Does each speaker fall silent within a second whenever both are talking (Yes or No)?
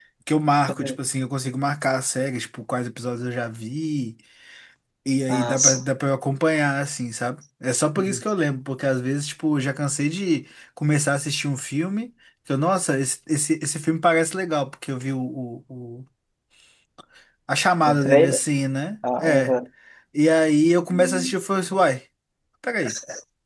Yes